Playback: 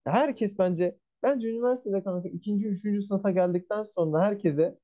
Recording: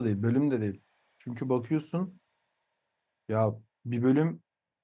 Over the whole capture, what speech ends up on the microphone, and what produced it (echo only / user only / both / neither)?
user only